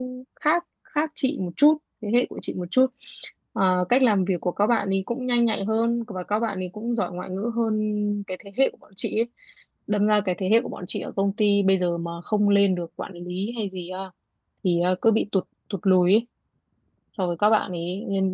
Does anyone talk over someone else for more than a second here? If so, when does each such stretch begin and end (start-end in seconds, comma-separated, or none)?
none